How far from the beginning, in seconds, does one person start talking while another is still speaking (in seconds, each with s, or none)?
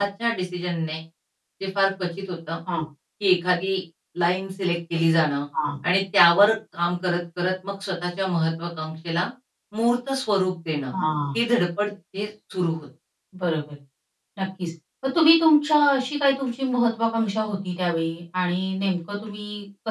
none